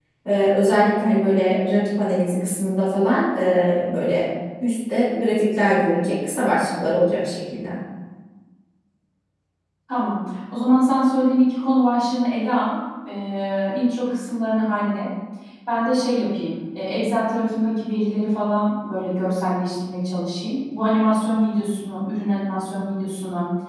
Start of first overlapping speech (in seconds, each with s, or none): none